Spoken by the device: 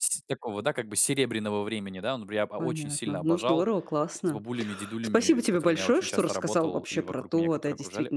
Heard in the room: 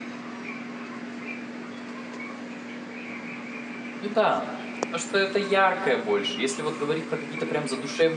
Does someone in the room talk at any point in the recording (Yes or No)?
Yes